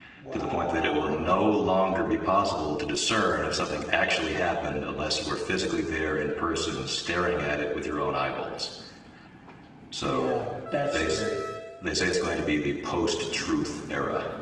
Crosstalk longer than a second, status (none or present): present